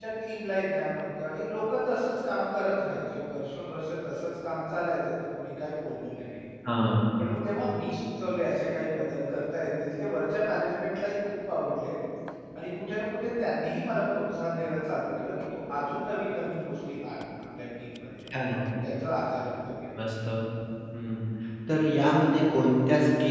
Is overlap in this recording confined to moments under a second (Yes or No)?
Yes